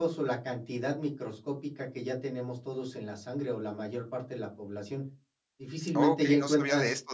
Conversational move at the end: taking over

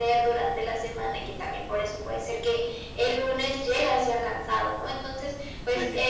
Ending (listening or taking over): listening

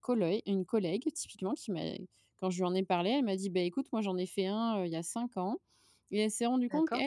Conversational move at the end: listening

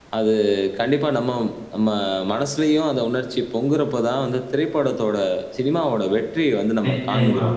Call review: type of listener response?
taking over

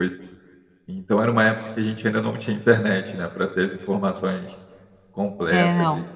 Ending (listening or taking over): listening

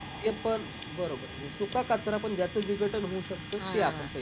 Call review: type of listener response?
taking over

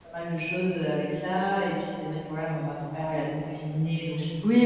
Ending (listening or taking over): taking over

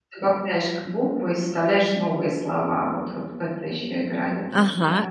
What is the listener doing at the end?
taking over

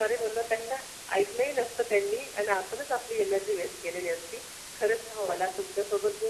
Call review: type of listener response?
listening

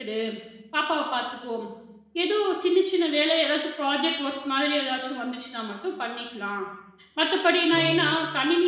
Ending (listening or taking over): listening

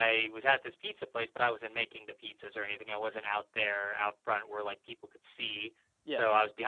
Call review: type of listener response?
listening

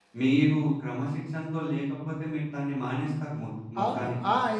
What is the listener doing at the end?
taking over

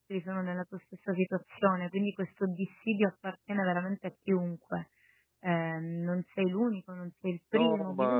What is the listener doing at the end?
taking over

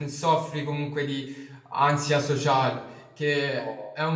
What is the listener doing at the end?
listening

